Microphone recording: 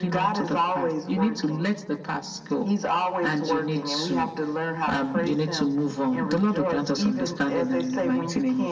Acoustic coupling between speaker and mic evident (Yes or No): Yes